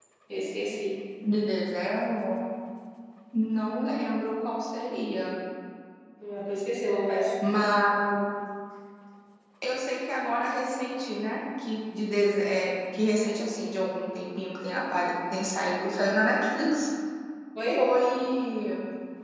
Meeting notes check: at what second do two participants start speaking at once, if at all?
none

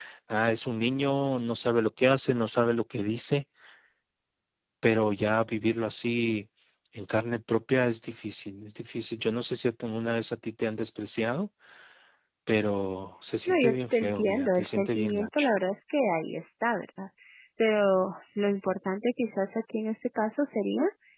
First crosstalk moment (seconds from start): 13 s

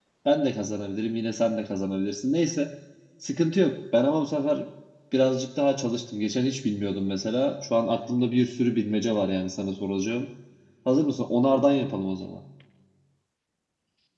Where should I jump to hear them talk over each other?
none

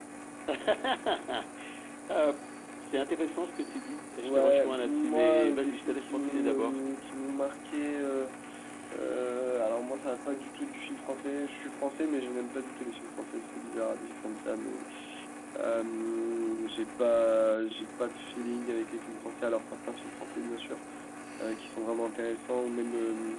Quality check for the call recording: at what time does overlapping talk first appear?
4 s

